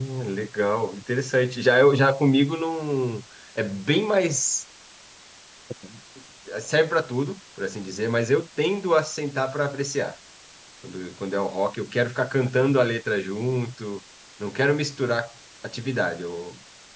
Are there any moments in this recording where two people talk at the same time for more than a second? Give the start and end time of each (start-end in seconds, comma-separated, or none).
none